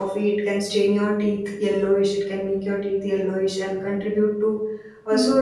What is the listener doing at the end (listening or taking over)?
listening